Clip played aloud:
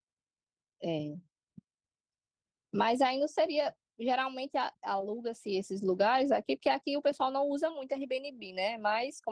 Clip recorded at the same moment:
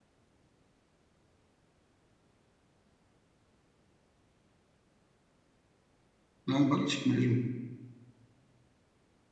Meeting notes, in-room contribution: present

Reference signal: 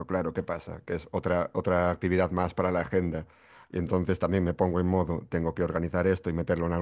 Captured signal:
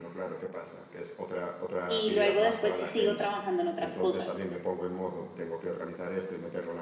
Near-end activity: present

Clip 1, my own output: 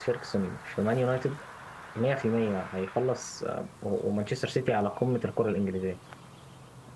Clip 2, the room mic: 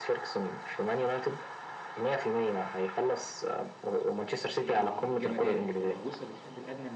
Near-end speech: present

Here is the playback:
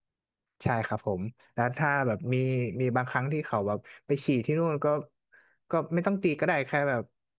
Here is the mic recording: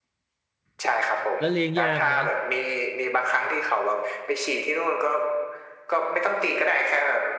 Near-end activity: present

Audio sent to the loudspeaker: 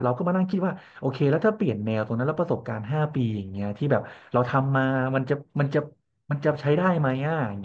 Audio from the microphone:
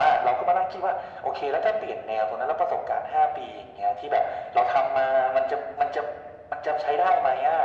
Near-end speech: none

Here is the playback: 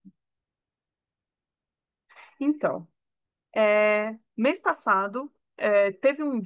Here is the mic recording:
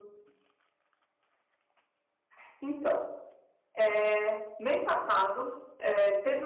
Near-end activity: none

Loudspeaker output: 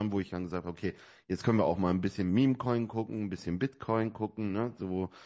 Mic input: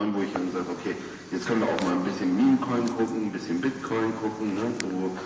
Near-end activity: none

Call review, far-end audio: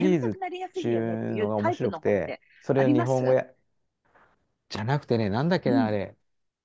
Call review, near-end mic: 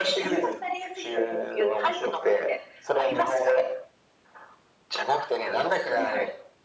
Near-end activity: none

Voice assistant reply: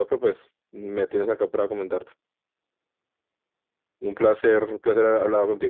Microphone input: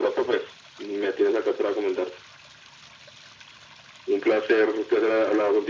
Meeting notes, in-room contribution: none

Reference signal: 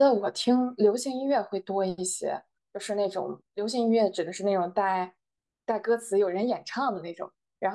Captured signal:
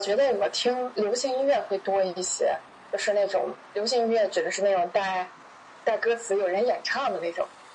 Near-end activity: none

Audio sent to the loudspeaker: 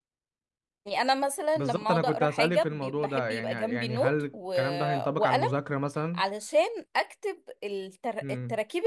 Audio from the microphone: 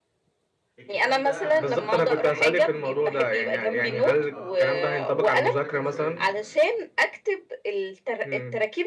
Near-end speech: present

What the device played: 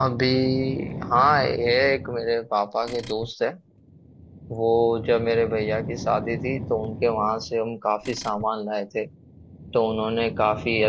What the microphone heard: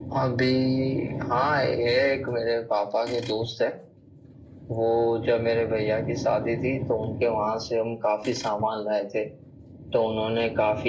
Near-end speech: none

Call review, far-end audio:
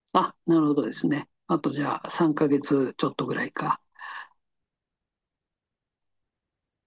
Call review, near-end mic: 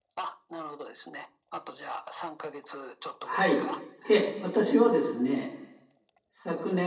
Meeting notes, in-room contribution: present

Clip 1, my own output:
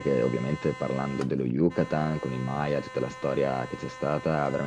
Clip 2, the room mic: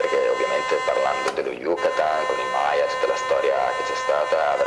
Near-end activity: none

